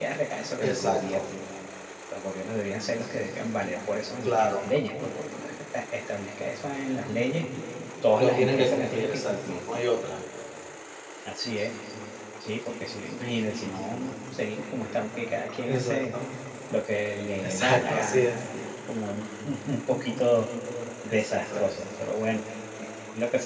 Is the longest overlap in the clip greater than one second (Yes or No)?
Yes